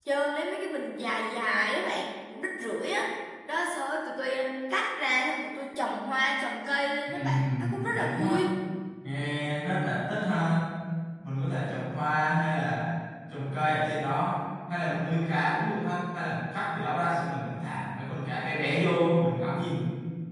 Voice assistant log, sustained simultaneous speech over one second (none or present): present